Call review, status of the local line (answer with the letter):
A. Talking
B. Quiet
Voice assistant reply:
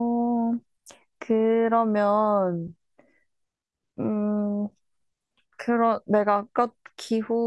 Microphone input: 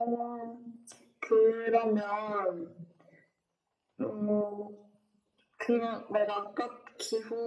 B